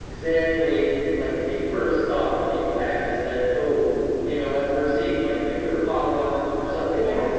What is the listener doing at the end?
listening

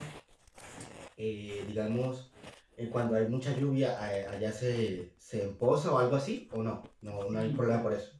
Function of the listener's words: taking over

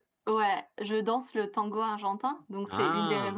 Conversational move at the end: listening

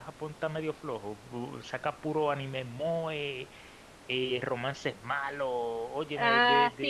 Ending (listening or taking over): listening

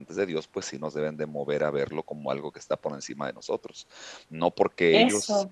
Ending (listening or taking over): listening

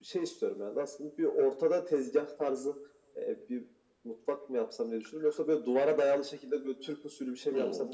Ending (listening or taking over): taking over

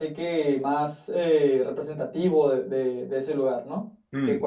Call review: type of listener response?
taking over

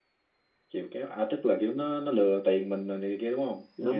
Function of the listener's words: taking over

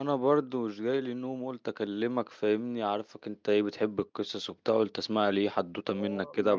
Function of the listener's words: taking over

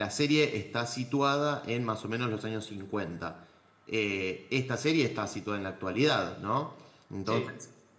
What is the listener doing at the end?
listening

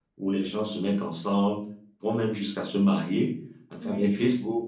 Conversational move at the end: listening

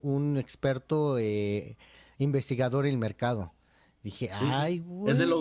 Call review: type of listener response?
taking over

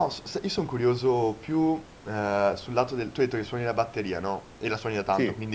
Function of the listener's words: listening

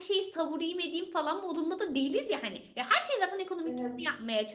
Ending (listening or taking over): listening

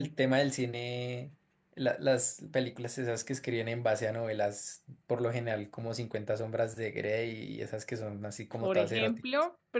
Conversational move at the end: taking over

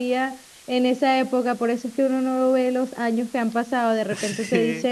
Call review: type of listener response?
listening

